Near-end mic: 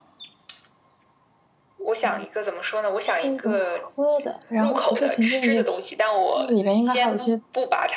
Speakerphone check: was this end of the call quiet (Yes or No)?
No